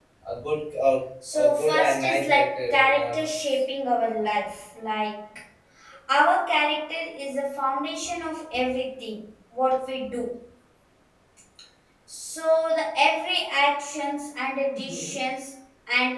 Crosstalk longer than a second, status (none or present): present